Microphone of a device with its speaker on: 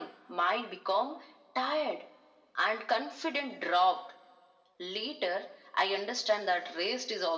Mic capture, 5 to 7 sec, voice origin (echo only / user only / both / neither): echo only